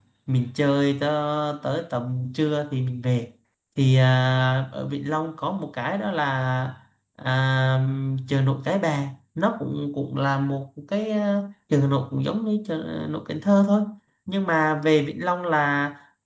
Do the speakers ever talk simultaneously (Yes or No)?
No